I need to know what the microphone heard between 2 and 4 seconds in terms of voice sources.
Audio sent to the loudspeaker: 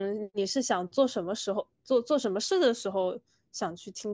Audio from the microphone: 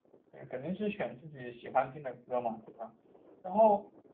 user only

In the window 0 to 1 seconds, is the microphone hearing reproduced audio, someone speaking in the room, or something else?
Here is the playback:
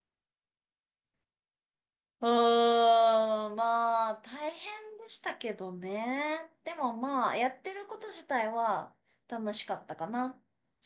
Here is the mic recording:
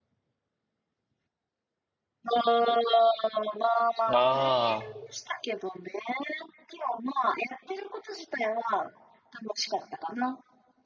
neither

